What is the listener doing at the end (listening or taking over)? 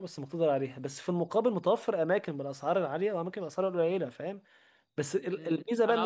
taking over